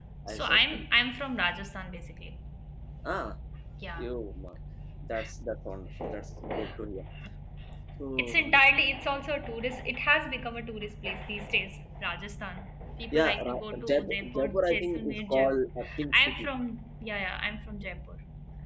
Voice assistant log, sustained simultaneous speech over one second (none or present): present